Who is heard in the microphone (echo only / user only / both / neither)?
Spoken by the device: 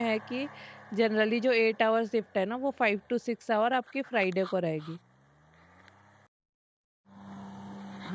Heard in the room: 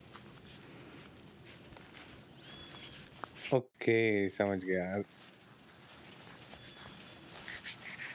user only